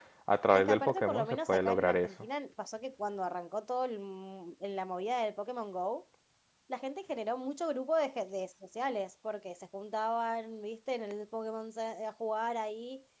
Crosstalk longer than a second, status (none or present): present